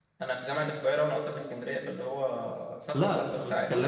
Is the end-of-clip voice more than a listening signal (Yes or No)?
Yes